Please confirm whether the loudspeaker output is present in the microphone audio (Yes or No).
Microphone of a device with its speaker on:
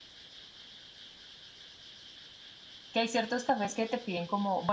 No